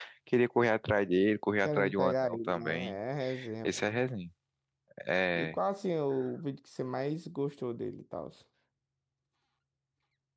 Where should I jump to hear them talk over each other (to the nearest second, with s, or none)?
2 s